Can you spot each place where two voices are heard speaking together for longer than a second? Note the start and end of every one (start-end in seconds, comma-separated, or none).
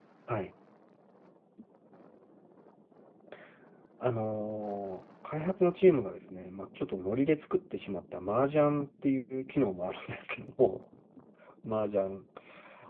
none